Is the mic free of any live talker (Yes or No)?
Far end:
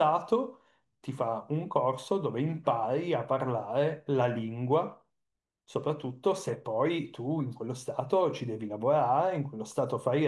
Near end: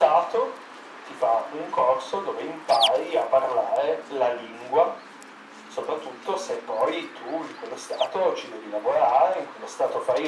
Yes